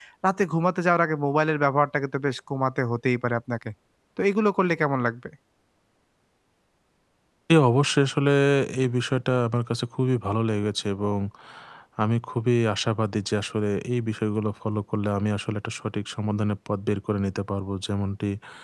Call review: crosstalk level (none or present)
none